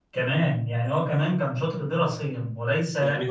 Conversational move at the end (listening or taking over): taking over